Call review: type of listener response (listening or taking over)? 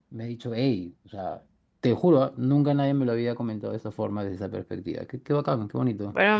taking over